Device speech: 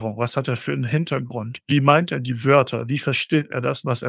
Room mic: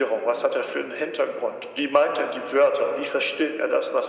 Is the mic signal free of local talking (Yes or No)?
Yes